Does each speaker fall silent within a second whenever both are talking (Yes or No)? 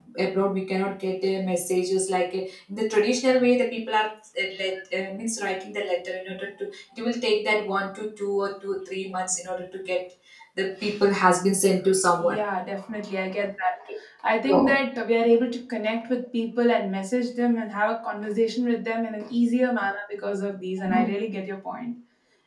Yes